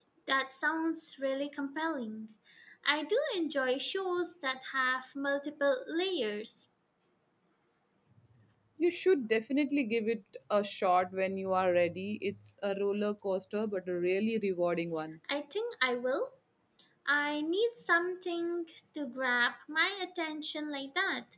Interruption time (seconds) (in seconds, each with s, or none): none